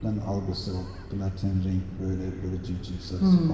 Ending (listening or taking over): taking over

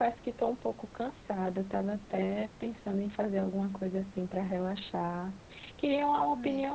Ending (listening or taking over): listening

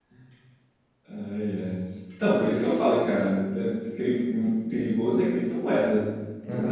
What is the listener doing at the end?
taking over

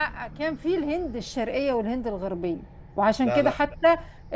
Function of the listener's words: listening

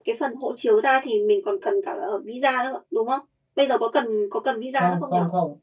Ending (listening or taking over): taking over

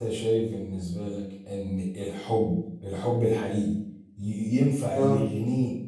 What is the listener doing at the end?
listening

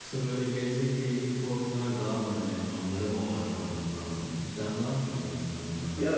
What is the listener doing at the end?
taking over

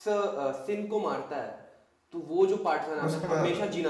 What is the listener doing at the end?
listening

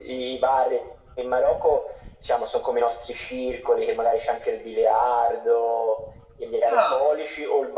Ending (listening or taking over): listening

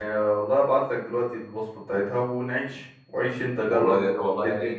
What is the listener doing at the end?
taking over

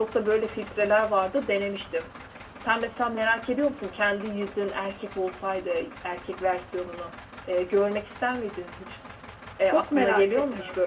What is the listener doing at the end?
taking over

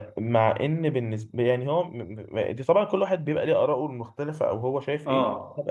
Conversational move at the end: taking over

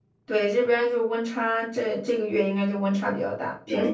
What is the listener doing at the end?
taking over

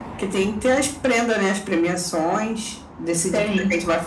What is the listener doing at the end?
listening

